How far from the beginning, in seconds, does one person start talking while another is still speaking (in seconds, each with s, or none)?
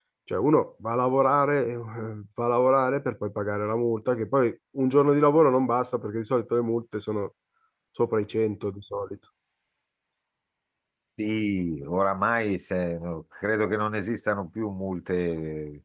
none